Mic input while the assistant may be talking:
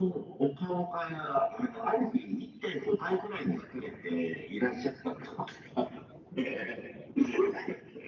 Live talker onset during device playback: none

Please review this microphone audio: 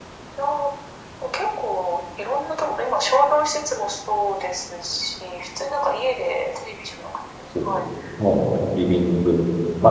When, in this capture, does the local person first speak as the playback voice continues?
7.5 s

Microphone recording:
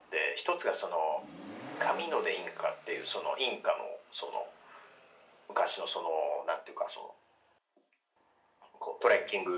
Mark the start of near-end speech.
none

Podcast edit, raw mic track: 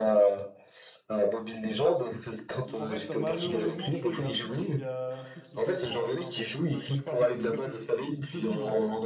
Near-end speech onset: 2.5 s

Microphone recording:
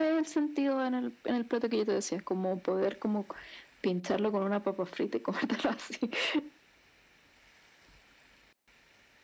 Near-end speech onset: none

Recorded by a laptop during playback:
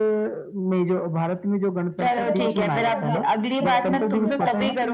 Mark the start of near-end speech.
2.1 s

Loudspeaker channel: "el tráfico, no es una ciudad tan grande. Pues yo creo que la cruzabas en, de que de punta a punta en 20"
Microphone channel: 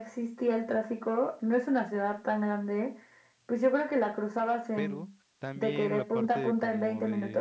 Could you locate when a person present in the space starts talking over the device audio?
4.7 s

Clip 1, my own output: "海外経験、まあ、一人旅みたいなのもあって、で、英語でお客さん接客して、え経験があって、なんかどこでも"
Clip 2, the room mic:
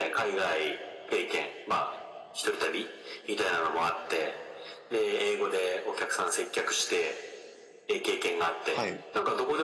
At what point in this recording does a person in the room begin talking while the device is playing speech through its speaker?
8.7 s

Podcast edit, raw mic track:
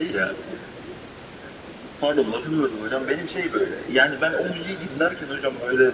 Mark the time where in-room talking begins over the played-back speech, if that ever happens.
none

